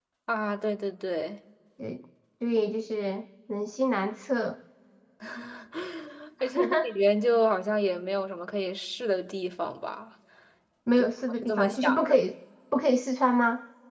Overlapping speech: Yes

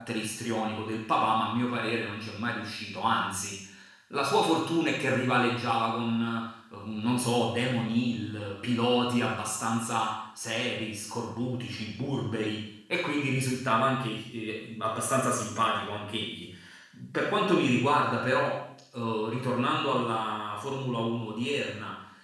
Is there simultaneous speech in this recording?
No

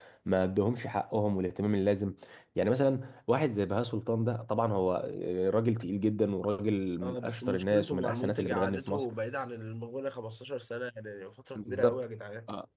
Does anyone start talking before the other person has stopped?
Yes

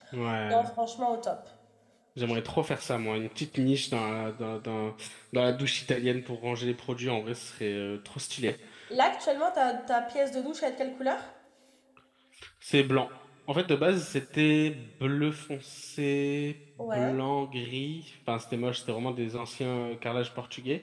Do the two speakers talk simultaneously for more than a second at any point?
No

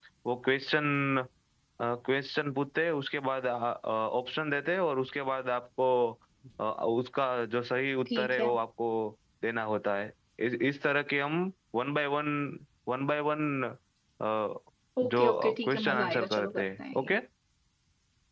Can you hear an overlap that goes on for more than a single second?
Yes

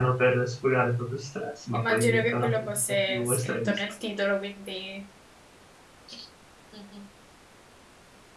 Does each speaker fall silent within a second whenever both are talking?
No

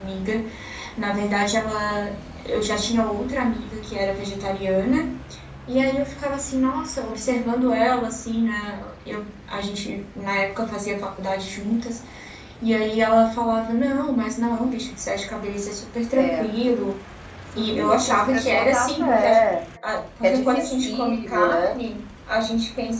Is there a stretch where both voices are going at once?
Yes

